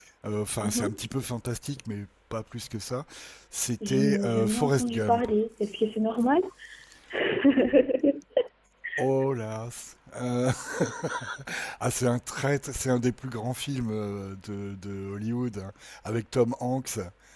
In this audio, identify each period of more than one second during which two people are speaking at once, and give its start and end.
3.9-5.3

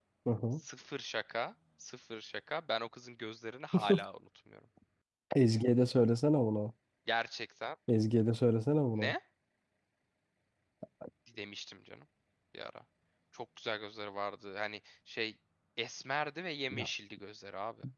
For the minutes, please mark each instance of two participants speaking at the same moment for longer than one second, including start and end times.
none

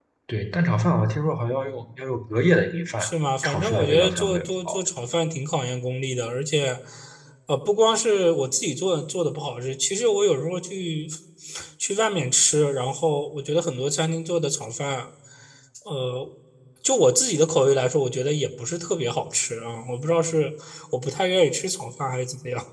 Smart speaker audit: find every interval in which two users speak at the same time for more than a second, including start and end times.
3.4-4.8

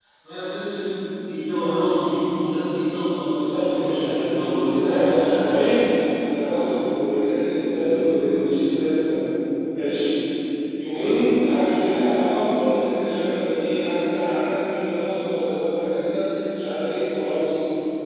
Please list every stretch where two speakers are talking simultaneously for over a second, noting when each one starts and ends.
3.1-5.6

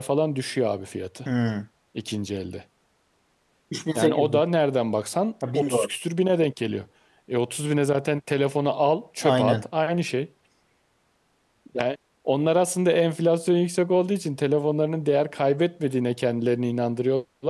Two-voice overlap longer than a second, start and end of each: none

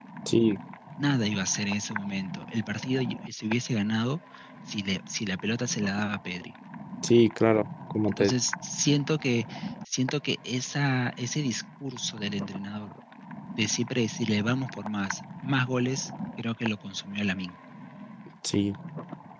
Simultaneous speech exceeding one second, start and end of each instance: none

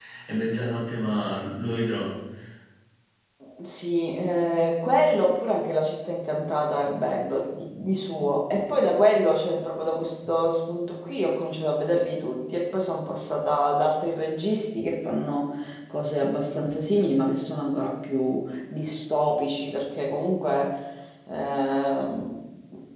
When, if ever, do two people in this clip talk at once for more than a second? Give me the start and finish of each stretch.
none

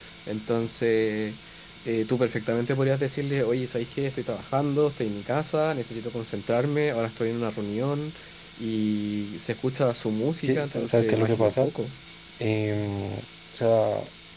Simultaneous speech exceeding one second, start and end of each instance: 10.4-11.7

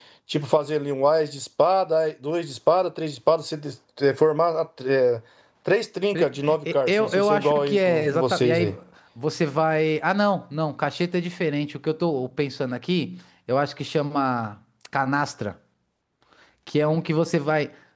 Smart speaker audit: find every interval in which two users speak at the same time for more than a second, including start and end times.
6.1-8.7

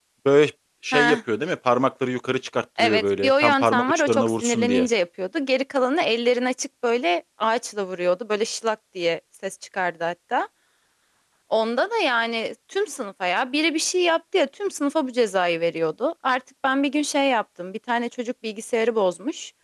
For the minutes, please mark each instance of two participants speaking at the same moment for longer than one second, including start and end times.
2.8-4.9

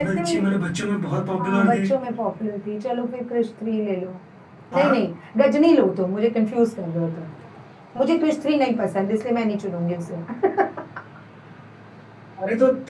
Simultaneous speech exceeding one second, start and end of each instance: none

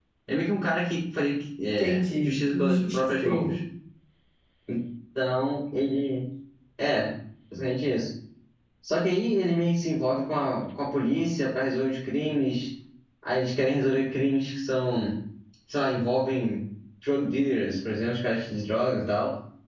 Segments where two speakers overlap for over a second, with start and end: 1.8-3.6

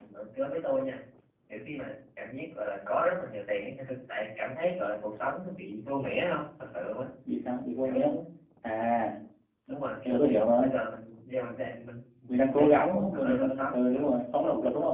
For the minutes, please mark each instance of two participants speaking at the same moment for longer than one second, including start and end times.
12.4-14.1

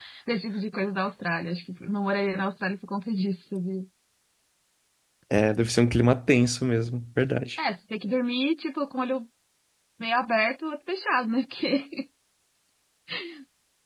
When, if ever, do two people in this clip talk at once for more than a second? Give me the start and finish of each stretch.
none

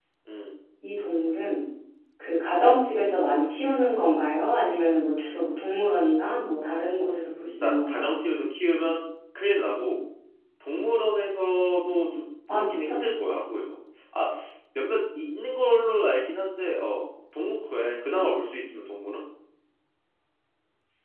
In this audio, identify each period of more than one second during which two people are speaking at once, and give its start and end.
none

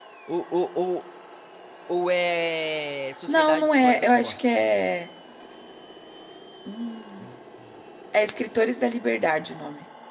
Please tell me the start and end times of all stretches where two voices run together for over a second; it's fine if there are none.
3.3-4.6

